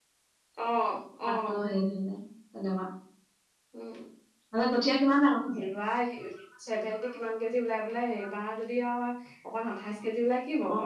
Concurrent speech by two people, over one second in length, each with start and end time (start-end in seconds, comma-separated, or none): none